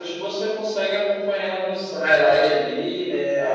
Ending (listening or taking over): taking over